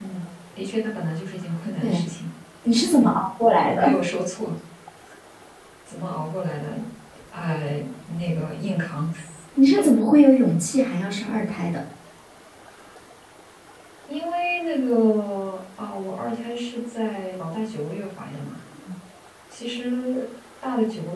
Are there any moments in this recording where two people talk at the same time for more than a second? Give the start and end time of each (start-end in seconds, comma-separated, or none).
none